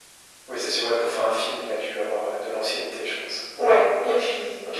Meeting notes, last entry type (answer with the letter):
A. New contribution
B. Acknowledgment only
A